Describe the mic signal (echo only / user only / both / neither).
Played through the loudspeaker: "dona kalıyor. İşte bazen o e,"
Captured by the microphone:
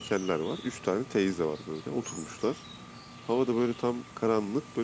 user only